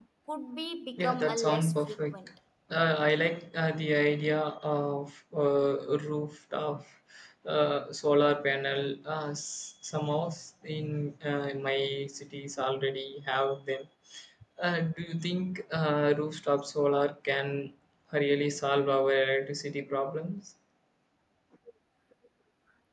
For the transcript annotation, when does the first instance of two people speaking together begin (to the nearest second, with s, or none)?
1 s